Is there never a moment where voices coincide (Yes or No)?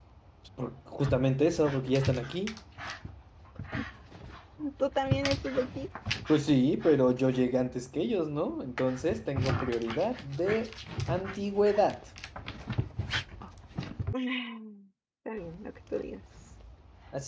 Yes